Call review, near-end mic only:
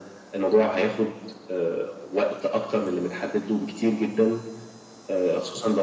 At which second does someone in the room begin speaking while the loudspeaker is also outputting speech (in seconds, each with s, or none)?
none